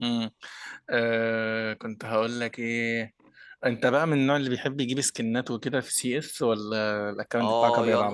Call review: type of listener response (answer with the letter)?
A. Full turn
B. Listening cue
A